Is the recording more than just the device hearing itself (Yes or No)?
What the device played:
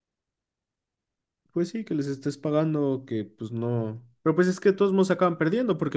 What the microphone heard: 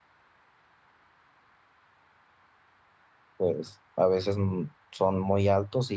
Yes